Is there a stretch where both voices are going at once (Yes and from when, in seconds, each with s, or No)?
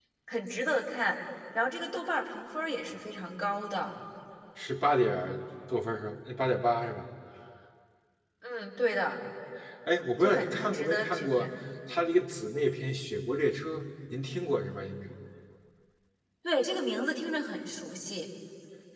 Yes, from 10.2 s